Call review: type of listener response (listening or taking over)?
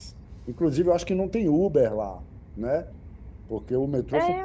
taking over